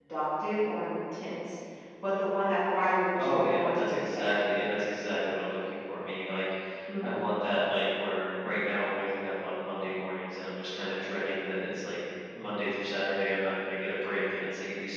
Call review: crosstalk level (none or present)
present